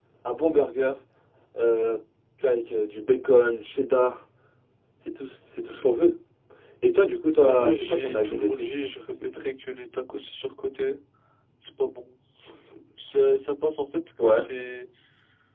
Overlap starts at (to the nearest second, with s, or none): 7 s